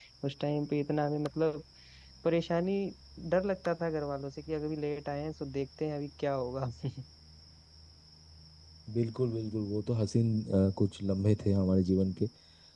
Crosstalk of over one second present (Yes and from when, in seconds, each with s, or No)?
No